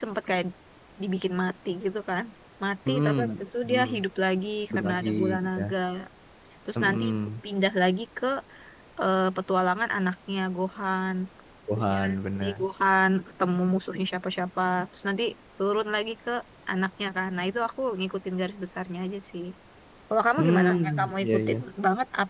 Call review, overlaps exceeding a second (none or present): present